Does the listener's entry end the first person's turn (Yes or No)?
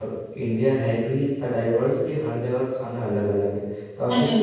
No